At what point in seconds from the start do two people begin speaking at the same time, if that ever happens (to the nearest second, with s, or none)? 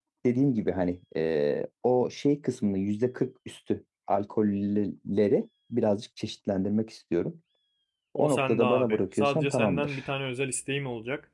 8 s